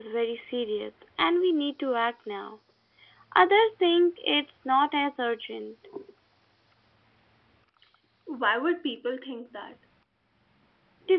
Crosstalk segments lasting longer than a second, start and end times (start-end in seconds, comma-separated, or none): none